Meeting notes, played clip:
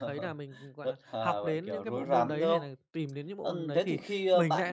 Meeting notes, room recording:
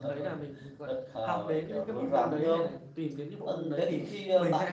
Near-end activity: none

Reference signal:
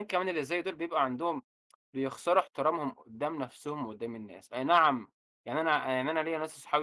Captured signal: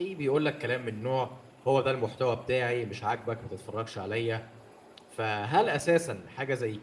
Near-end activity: present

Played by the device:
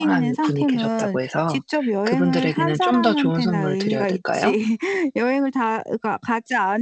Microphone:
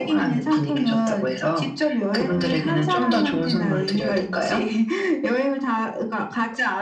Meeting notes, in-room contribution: none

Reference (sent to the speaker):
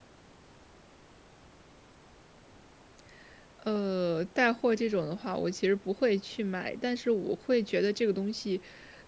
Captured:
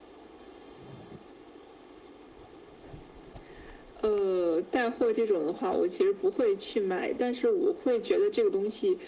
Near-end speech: none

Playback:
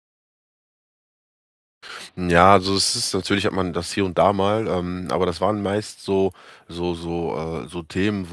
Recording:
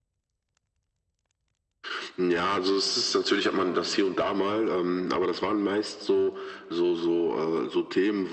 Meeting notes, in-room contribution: none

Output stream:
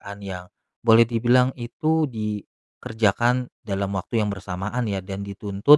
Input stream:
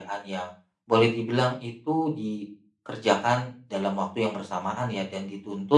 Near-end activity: none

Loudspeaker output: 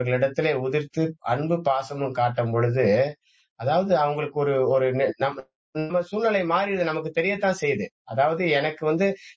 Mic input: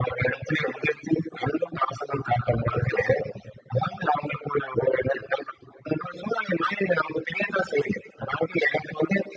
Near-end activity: none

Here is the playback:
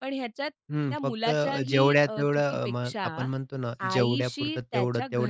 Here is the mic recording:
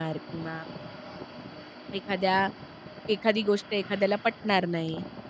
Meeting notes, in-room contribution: present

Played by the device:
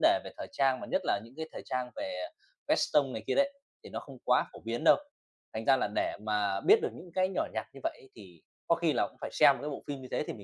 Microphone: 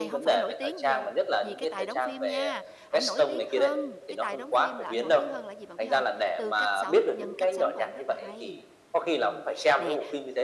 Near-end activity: present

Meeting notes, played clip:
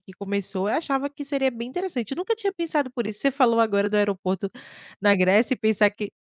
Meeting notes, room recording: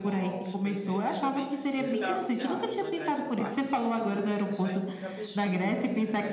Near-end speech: present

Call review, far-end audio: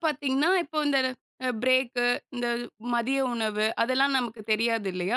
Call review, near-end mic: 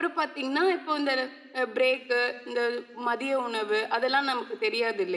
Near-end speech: none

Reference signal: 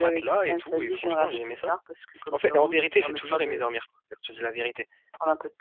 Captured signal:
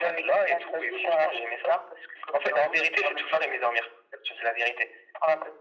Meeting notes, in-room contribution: none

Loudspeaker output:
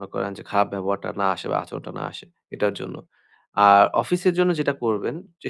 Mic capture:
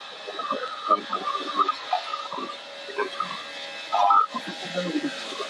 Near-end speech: none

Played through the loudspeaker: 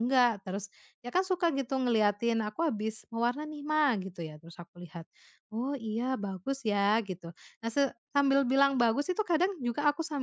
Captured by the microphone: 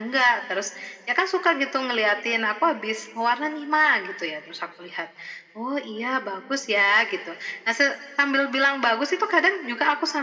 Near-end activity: none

